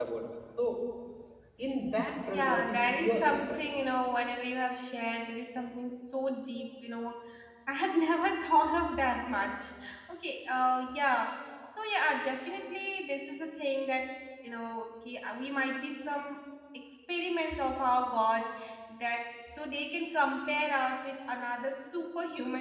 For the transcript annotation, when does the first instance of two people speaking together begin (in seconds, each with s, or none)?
2.3 s